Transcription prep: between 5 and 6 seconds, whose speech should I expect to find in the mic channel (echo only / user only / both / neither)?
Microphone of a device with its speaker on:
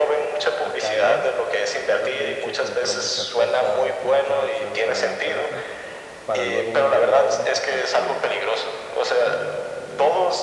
both